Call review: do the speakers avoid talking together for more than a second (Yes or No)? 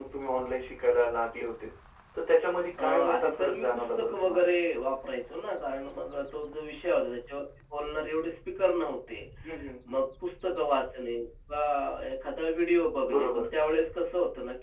No